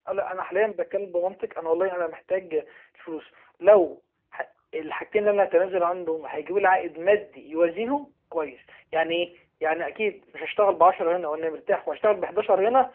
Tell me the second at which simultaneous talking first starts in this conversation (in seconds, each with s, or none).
none